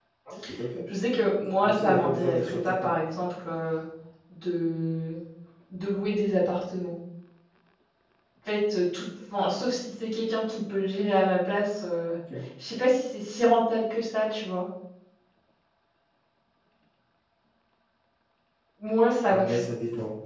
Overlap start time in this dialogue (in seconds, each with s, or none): 1.6 s